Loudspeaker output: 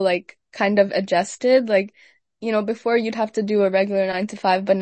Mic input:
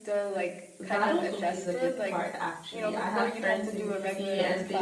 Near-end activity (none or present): present